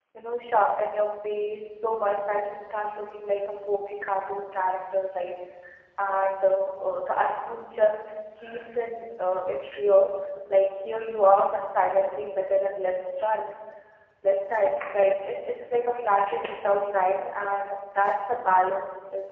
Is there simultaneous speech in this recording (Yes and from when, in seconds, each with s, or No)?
No